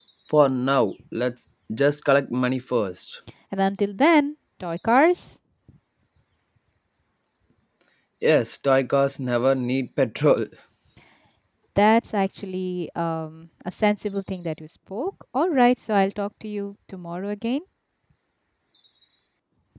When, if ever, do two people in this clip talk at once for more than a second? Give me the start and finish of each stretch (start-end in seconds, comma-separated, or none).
none